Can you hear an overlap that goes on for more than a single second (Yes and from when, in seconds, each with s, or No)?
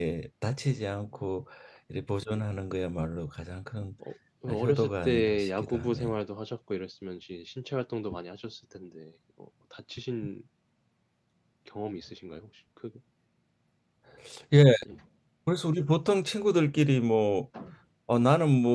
Yes, from 4.5 s